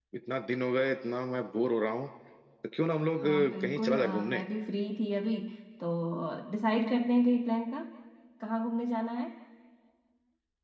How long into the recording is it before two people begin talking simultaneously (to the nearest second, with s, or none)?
3 s